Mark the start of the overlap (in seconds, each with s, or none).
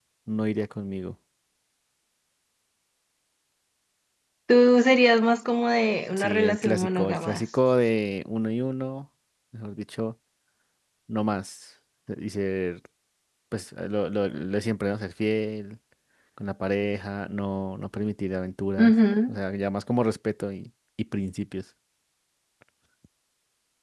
6.2 s